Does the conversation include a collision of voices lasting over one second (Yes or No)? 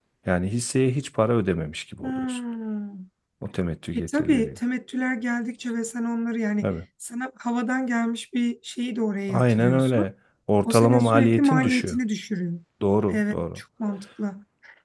Yes